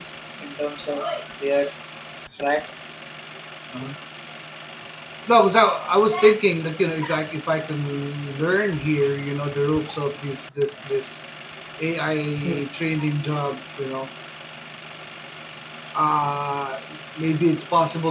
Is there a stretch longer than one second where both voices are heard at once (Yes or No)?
No